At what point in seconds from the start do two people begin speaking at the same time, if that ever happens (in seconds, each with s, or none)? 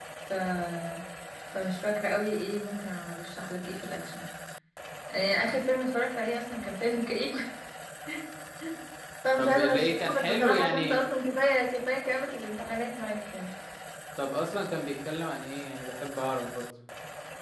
9.4 s